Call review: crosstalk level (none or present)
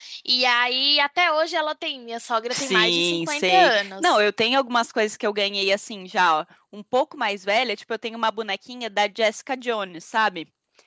present